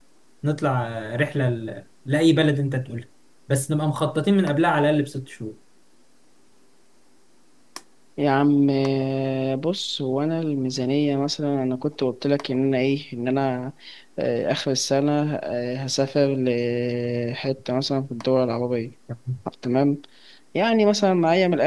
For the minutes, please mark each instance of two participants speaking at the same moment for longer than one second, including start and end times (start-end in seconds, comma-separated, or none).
none